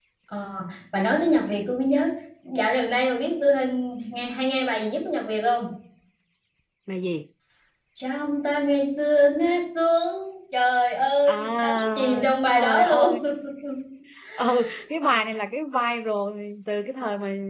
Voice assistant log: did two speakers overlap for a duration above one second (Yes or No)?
Yes